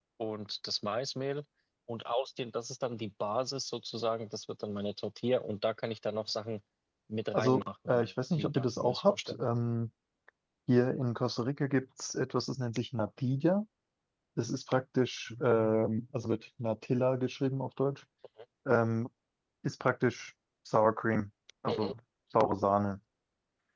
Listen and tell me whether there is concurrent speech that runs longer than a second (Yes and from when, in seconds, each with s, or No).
Yes, from 7.3 s